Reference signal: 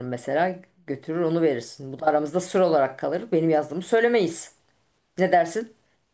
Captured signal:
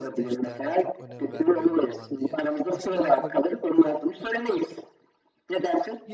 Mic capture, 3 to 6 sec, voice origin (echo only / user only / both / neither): both